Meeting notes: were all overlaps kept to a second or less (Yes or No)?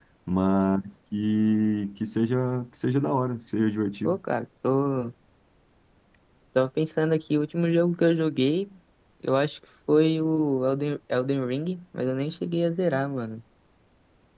Yes